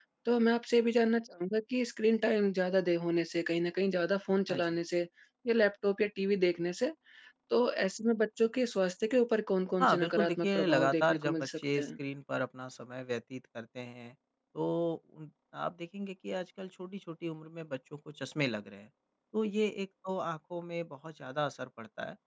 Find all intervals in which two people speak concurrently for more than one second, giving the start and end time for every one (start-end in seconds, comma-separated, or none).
9.8-11.9